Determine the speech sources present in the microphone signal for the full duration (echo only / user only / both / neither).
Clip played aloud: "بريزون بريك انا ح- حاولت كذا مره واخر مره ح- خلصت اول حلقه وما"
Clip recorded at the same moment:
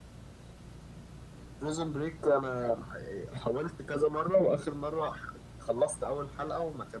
echo only